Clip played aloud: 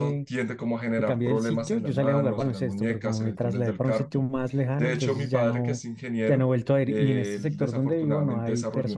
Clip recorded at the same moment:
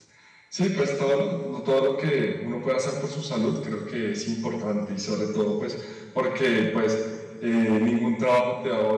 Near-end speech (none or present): present